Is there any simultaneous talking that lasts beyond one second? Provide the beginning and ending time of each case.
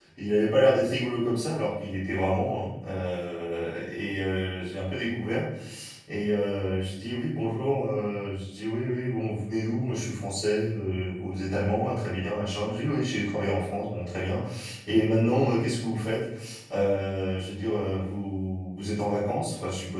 none

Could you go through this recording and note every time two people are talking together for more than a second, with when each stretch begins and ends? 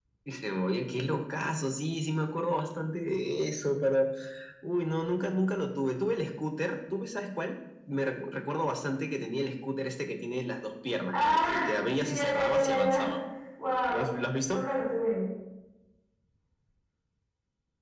11.2-13.1

